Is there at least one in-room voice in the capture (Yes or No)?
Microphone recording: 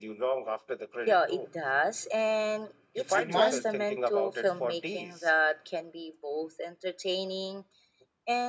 Yes